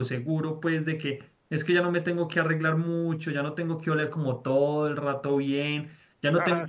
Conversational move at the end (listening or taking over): listening